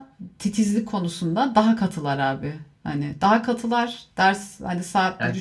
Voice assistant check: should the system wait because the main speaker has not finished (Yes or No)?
Yes